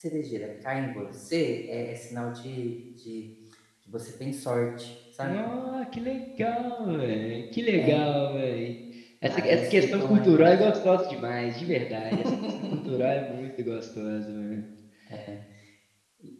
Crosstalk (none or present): present